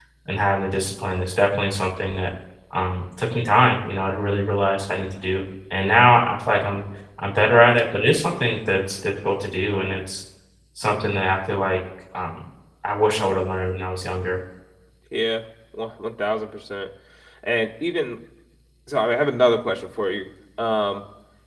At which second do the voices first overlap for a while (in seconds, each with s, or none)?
none